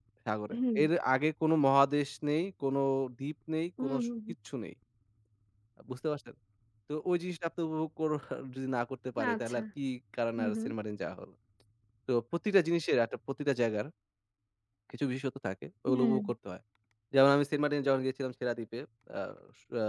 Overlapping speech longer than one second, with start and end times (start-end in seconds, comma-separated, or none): none